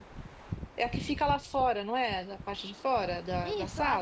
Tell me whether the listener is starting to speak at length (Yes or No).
Yes